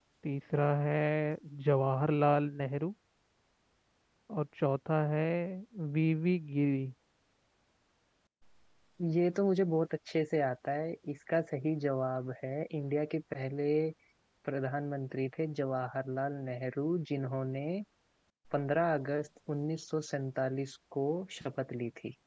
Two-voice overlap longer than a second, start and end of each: none

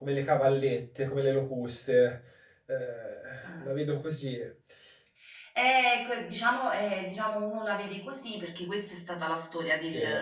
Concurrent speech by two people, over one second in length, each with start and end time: none

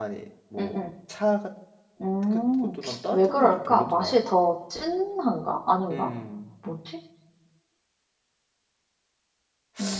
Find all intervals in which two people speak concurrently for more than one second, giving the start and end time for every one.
2.8-4.2

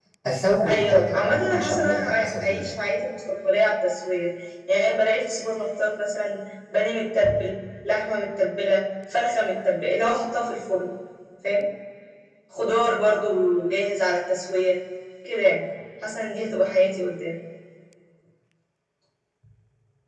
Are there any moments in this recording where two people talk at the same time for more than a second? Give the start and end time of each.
0.7-2.8

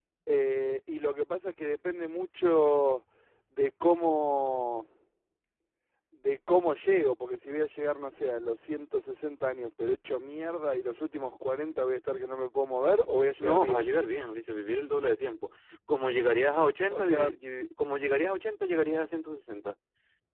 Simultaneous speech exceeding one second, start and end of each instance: none

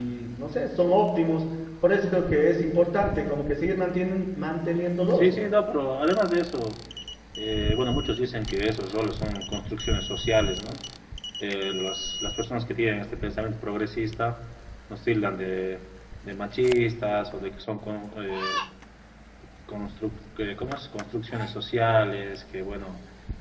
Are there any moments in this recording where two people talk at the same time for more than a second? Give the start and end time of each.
none

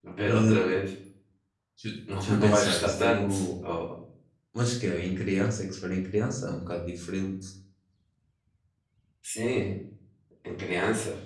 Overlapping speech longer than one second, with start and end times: 2.2-3.5

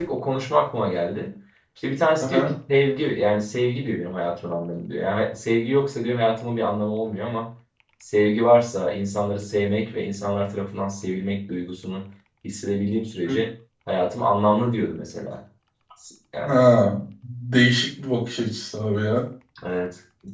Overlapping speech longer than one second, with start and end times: none

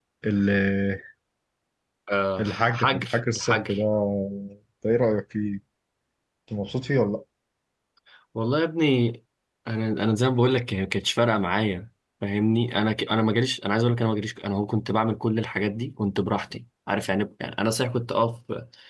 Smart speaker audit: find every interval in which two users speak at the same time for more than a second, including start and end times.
2.4-3.8

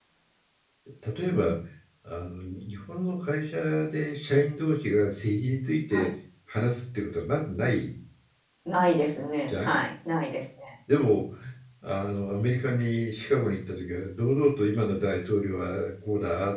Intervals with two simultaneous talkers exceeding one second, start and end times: none

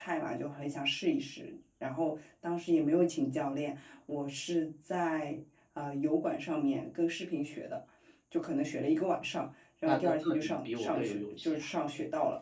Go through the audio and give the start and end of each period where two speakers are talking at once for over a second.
9.8-11.7

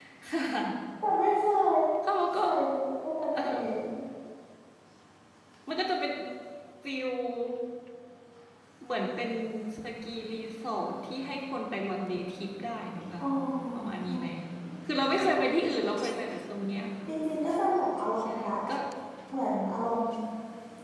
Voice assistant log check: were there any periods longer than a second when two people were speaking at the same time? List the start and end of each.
none

